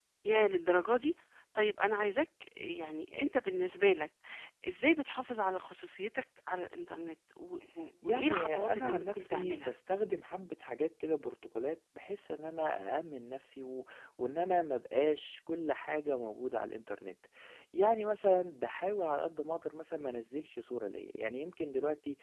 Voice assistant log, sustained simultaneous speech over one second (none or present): present